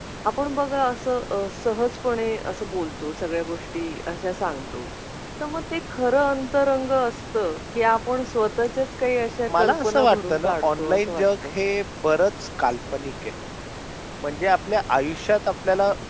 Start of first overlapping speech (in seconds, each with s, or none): 9.5 s